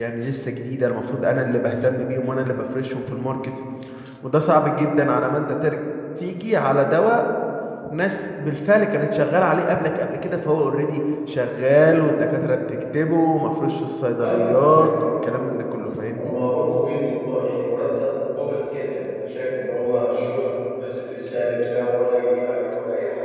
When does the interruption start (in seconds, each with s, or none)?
14.2 s